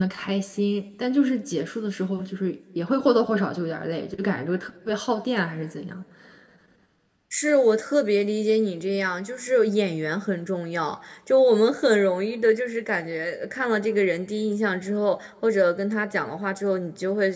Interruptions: none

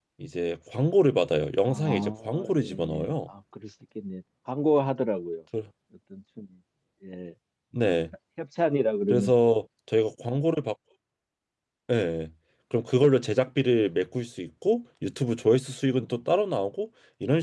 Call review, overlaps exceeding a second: present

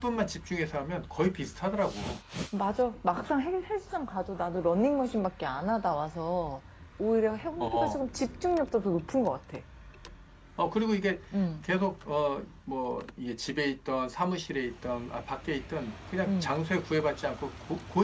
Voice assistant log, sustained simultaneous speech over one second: none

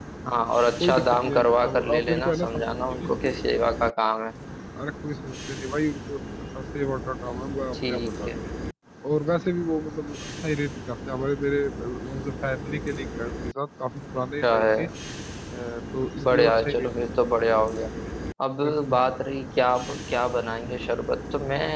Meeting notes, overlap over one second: present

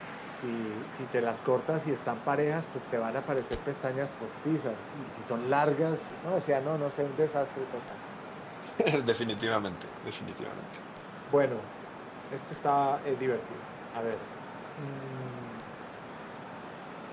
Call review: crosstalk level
none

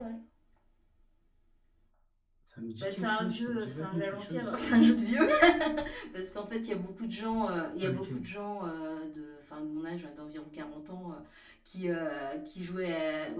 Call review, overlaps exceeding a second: present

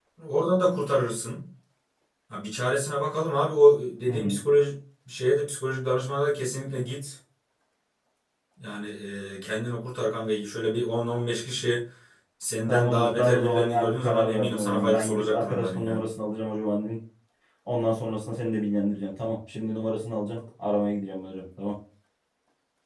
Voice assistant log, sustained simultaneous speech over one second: present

